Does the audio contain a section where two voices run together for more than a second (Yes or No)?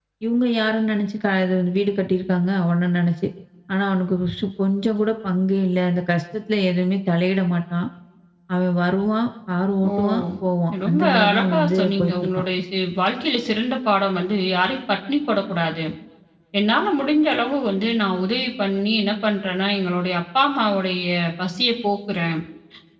Yes